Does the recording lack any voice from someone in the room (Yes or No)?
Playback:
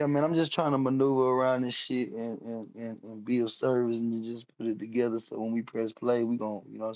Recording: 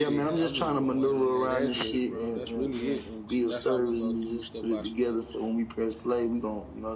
No